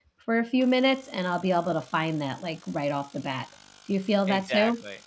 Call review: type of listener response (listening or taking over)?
taking over